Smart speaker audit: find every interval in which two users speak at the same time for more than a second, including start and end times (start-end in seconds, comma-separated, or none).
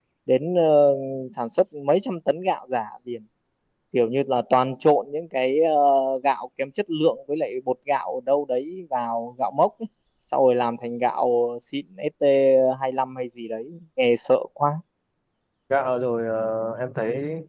none